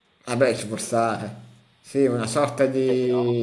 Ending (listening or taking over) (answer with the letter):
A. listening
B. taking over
A